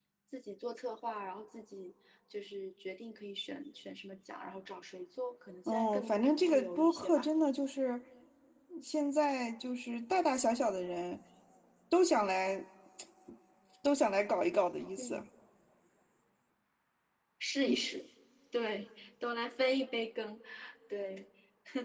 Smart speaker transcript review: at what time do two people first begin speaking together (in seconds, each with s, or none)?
5.7 s